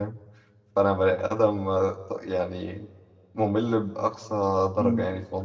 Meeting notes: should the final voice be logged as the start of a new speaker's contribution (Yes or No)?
Yes